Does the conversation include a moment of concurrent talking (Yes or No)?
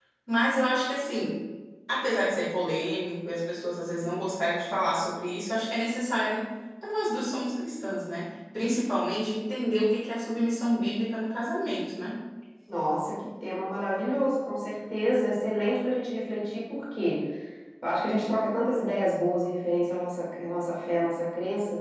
No